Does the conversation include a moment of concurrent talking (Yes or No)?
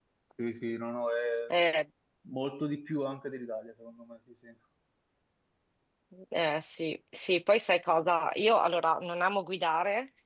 No